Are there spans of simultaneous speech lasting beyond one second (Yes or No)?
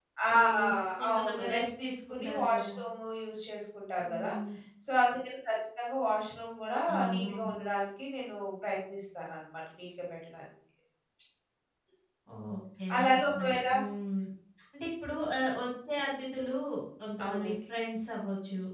Yes